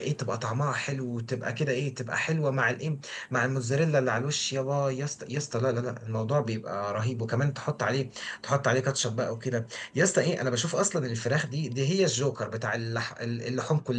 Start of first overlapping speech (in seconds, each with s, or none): none